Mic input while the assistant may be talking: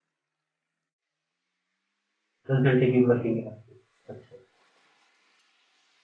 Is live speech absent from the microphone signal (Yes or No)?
No